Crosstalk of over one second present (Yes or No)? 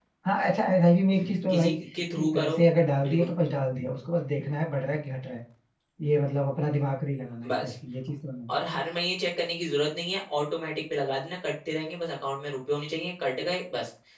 No